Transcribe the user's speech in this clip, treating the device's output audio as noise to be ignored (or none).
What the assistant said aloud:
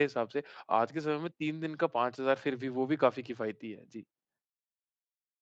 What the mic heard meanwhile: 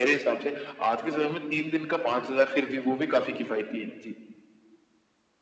none